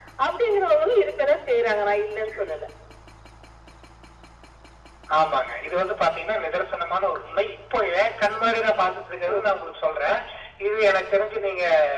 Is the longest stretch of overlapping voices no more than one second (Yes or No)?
Yes